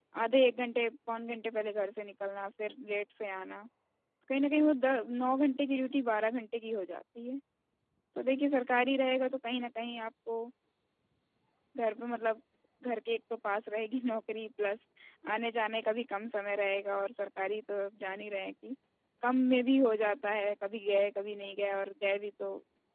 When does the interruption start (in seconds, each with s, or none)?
none